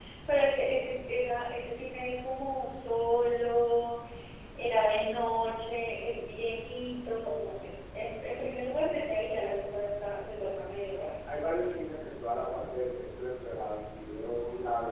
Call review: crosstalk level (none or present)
none